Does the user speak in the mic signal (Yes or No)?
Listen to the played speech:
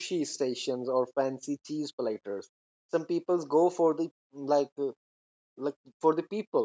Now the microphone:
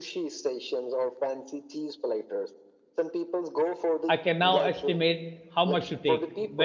Yes